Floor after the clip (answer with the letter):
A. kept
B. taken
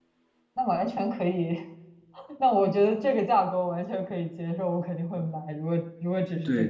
B